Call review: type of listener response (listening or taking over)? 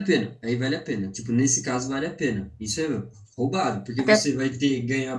listening